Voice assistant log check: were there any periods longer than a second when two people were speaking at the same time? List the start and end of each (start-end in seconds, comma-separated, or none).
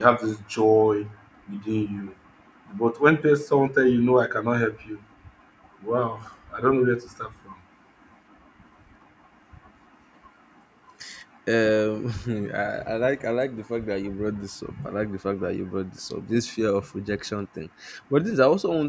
none